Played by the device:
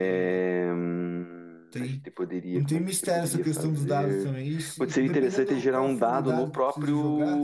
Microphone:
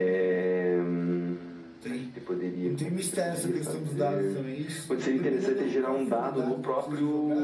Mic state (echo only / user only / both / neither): echo only